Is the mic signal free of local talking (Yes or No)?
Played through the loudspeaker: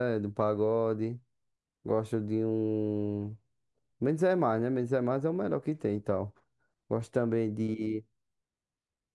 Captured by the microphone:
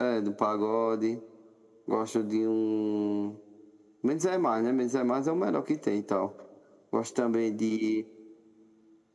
Yes